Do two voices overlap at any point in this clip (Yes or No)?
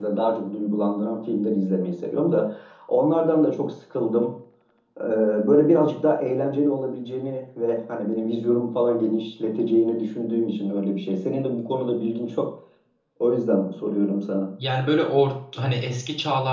No